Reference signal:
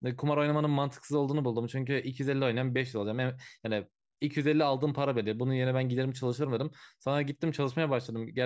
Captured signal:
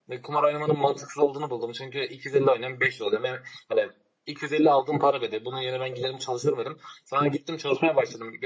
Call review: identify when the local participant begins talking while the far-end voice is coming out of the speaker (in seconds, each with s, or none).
none